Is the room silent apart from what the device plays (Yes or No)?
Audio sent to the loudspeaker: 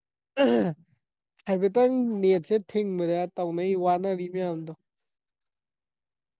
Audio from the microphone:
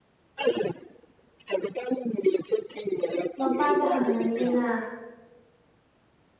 No